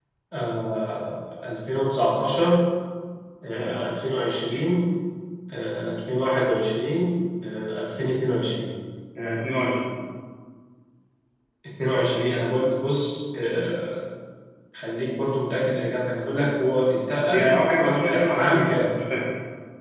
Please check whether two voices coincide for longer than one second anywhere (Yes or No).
Yes